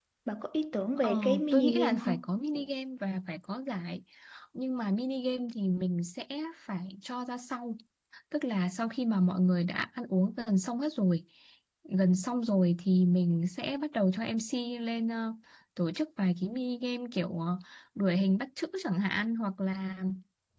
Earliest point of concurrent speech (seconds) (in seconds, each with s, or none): 1.0 s